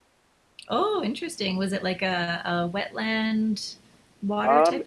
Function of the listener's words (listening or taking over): taking over